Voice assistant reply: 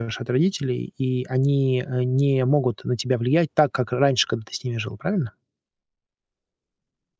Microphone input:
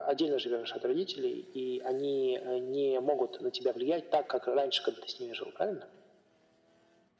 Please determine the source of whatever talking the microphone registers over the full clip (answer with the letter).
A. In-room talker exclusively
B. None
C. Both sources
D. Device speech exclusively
D